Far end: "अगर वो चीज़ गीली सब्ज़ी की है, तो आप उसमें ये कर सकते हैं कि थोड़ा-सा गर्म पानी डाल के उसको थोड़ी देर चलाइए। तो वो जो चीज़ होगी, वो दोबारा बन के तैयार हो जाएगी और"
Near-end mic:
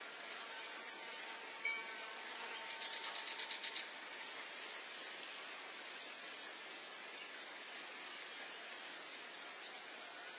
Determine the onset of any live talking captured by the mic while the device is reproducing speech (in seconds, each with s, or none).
none